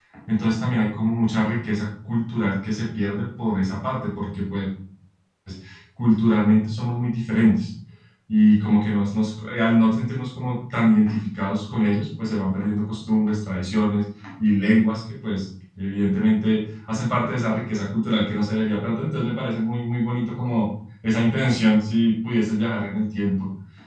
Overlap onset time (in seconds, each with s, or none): none